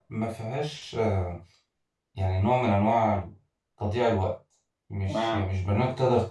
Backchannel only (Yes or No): Yes